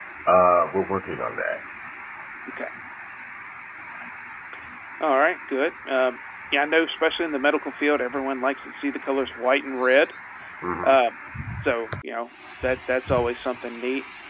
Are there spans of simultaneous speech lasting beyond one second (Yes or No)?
No